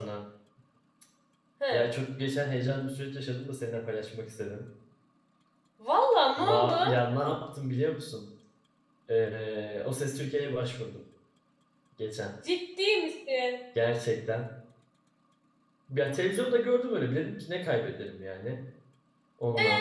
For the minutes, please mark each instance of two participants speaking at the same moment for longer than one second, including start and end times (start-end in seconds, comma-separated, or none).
none